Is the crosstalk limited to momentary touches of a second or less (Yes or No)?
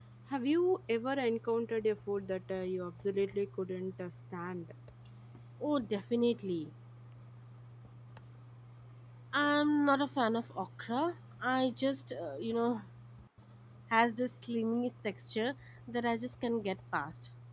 Yes